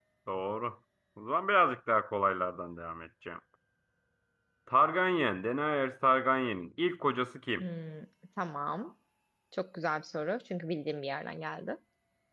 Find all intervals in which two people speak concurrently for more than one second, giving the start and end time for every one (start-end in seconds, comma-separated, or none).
none